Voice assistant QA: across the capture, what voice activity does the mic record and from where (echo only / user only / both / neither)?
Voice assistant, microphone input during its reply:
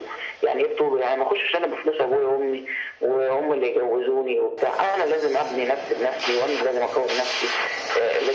echo only